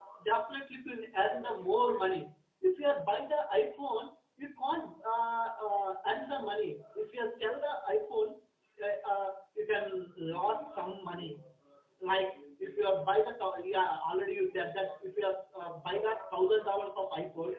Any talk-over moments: No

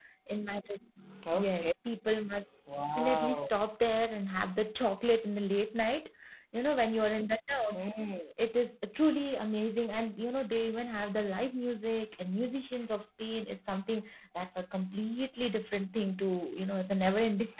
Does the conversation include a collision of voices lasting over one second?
No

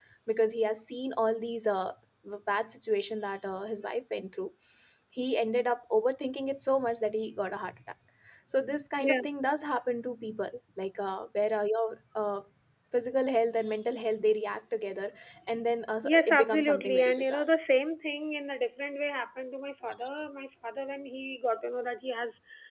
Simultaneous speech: Yes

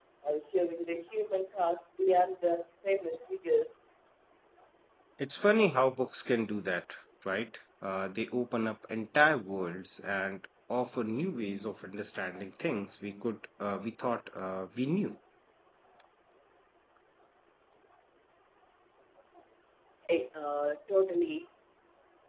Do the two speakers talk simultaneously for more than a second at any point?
No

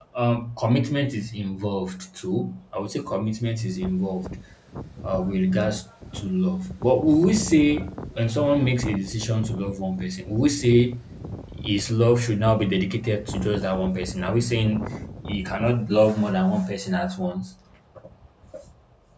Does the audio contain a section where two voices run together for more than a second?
No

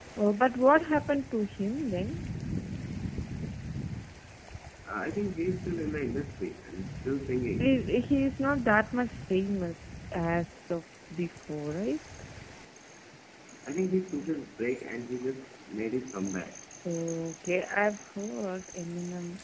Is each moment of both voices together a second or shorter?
Yes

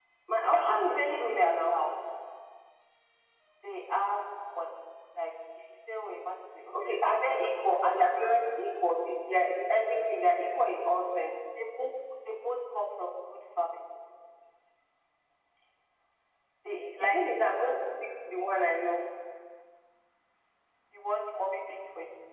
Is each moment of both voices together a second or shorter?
No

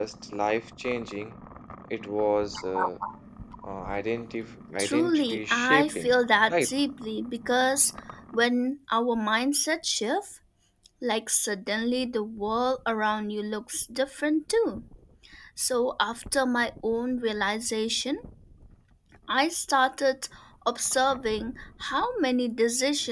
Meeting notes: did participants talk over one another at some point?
Yes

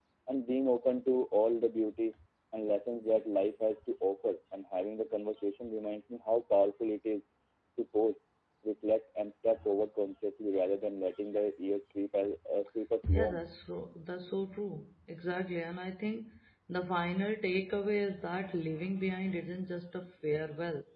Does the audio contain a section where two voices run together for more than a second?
No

